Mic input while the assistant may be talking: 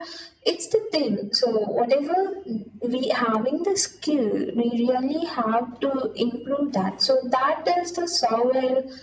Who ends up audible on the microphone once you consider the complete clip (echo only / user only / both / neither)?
echo only